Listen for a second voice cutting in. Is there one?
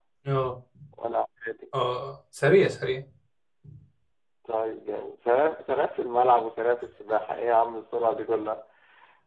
No

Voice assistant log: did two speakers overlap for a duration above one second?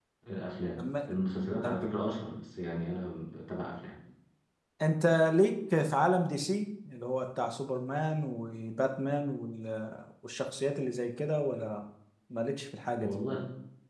No

